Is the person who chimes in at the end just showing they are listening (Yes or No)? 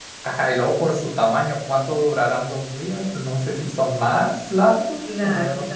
Yes